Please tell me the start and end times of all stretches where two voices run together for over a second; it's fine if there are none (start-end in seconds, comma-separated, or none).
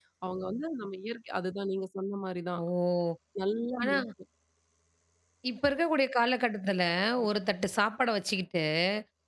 none